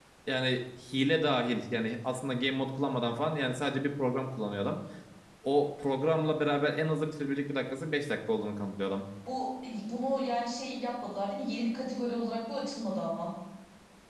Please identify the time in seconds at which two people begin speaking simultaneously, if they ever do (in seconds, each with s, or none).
none